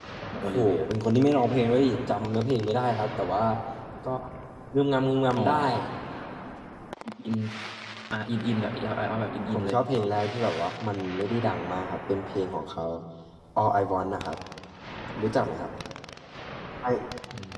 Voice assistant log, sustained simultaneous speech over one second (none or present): none